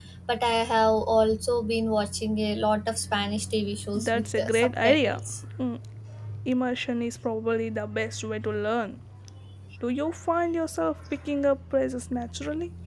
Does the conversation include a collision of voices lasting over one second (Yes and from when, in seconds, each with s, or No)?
Yes, from 3.9 s